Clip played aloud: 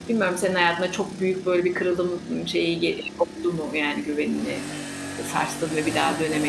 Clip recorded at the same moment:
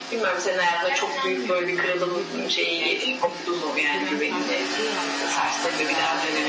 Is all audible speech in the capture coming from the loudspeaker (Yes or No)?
No